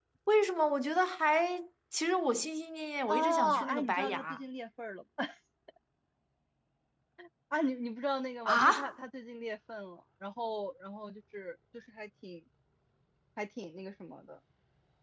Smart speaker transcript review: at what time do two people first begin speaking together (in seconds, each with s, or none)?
3.1 s